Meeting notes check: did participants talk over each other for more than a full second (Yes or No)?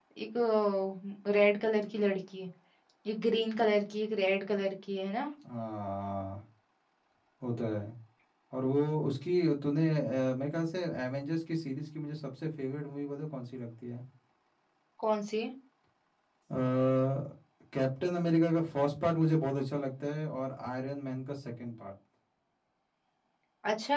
No